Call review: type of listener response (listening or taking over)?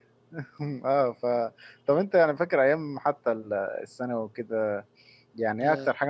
listening